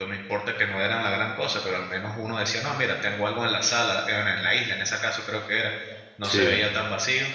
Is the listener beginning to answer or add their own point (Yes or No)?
No